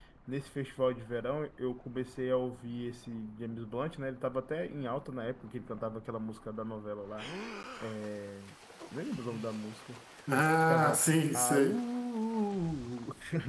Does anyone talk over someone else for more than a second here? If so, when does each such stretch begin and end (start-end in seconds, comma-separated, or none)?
10.3-11.8